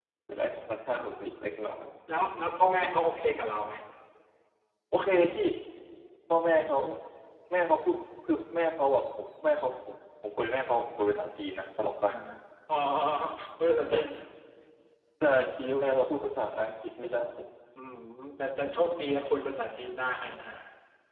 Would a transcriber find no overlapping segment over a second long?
Yes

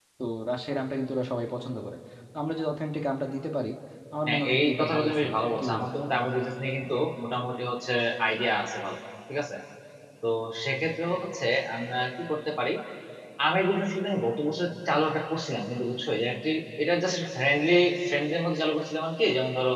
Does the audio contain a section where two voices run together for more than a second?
Yes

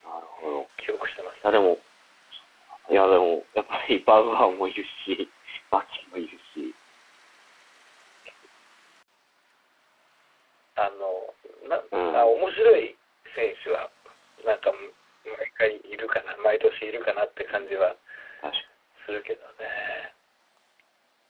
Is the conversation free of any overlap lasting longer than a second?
Yes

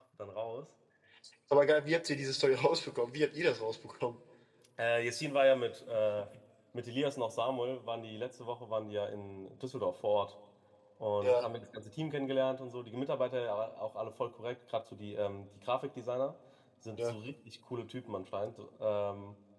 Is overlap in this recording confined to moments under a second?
Yes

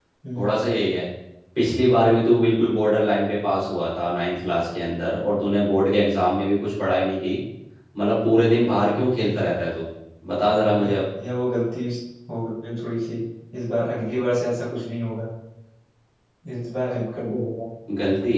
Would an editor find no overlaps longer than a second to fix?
Yes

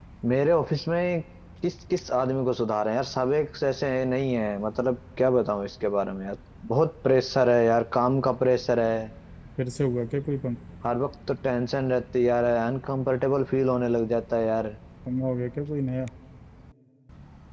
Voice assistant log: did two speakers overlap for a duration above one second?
No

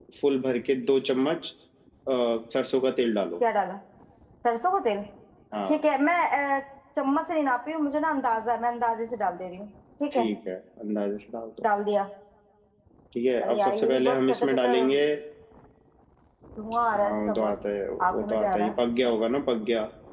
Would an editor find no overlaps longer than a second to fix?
No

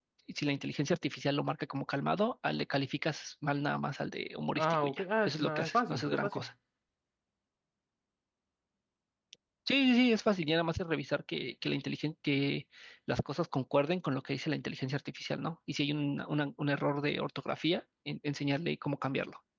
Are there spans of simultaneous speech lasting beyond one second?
Yes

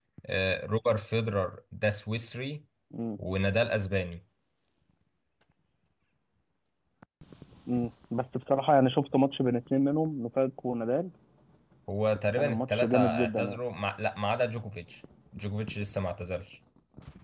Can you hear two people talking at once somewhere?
Yes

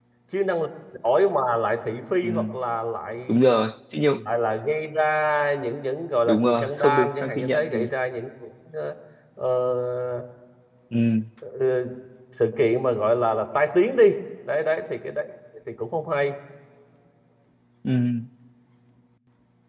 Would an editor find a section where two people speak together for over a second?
Yes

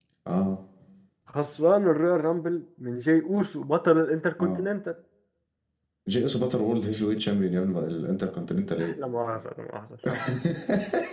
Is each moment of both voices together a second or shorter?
Yes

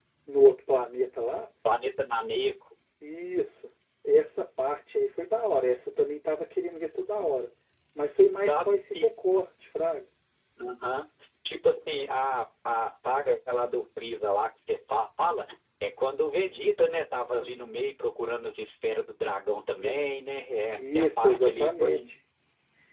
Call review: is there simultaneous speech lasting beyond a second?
Yes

